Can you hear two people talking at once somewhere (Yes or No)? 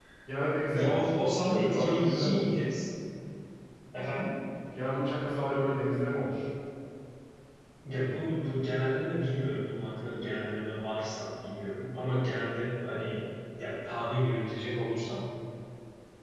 Yes